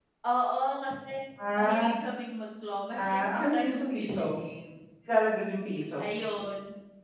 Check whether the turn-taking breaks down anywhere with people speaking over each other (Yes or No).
Yes